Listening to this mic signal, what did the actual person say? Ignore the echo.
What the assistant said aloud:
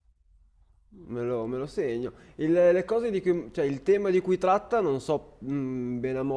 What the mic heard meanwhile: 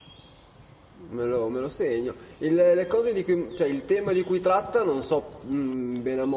none

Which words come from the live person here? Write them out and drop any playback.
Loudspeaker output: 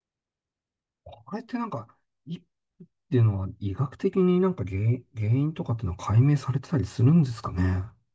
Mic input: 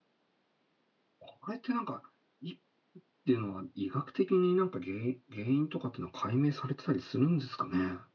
none

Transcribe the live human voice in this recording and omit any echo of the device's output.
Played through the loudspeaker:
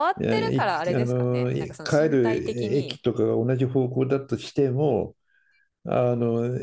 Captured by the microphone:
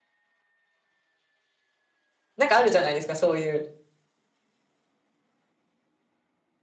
なんかあるじゃないですか、そういう。

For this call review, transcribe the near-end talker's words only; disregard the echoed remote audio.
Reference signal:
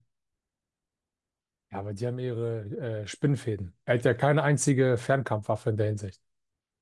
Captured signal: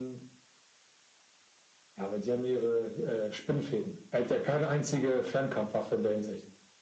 none

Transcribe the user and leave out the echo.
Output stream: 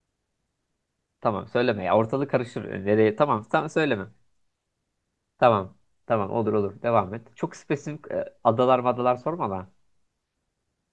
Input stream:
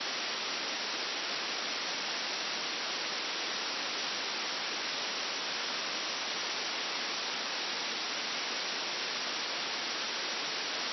none

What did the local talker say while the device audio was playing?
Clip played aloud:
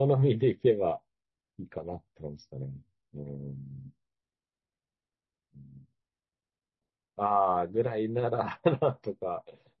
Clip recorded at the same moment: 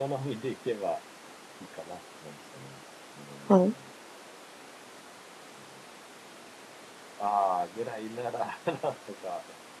はい。

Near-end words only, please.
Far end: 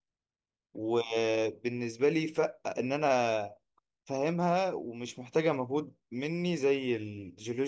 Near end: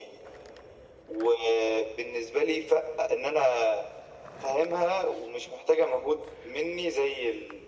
none

